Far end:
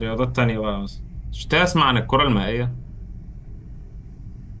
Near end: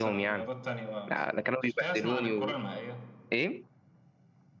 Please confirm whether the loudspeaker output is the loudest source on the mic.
No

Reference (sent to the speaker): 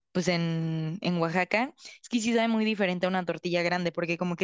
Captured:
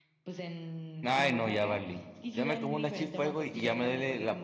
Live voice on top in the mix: Yes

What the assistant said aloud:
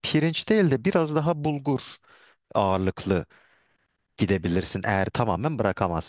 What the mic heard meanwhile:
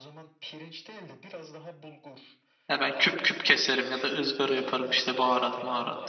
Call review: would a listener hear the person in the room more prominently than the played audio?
Yes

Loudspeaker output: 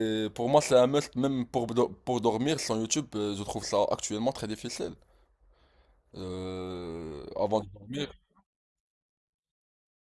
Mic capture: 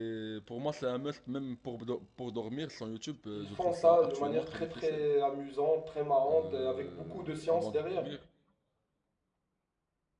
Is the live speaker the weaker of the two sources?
No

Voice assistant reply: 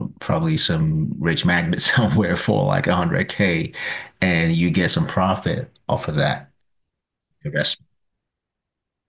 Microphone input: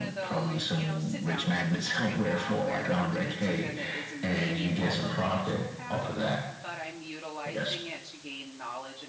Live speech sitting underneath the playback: Yes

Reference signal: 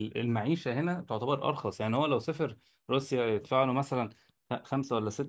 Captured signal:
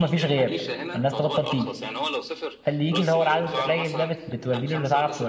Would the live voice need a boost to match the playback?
No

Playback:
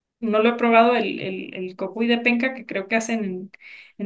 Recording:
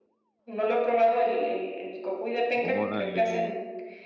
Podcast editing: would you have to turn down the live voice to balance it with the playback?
No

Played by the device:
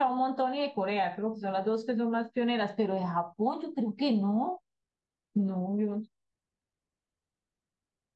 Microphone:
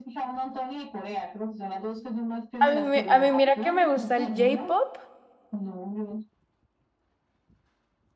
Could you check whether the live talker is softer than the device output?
No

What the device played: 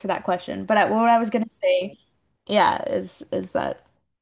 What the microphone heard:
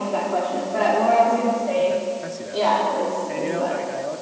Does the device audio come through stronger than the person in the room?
Yes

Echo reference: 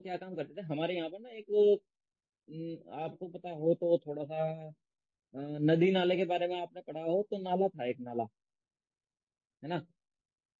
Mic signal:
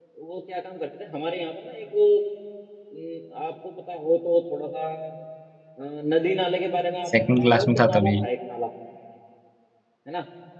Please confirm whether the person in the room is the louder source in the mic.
Yes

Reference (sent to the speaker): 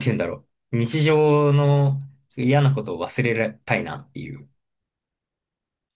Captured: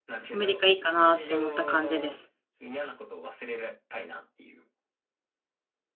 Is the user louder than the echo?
Yes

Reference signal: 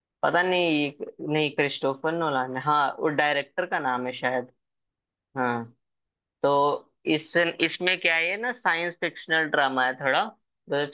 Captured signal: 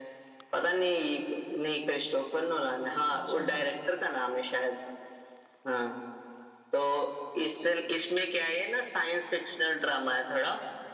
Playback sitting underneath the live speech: No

